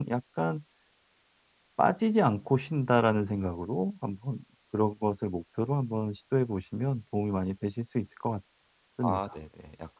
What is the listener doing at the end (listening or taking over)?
taking over